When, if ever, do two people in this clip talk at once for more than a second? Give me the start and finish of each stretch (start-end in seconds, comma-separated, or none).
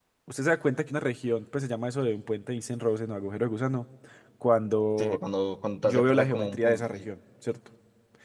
5.8-7.1